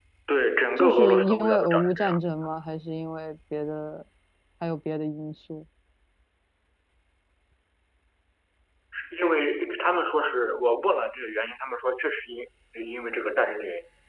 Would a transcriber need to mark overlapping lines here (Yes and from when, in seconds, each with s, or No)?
Yes, from 0.8 s